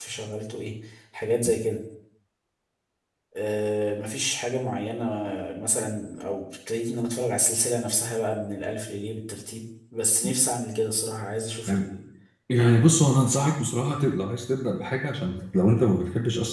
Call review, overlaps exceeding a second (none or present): none